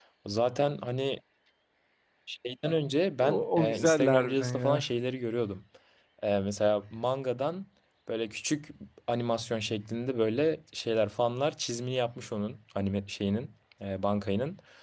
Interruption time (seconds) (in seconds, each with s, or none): 3.2 s